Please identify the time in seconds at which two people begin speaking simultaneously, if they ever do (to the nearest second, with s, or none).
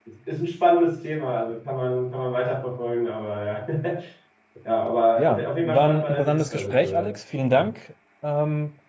5 s